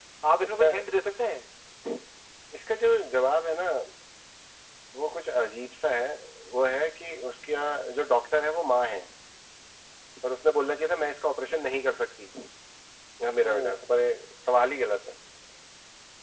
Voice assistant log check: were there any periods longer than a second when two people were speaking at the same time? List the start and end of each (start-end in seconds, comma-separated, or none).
none